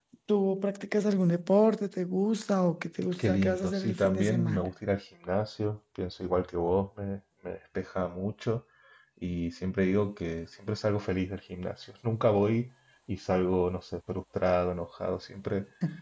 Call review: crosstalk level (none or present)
present